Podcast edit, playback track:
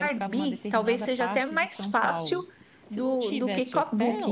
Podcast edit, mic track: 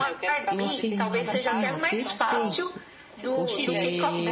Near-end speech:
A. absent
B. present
B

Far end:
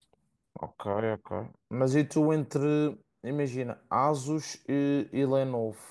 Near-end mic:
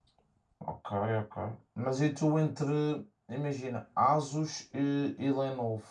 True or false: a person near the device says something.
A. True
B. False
B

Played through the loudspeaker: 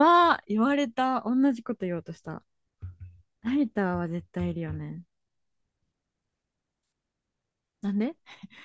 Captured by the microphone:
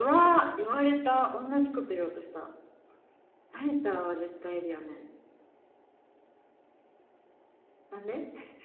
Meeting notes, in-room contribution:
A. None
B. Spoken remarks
A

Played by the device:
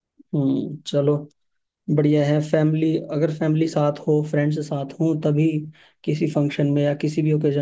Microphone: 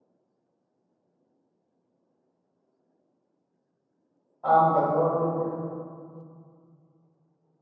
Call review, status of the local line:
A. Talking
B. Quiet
A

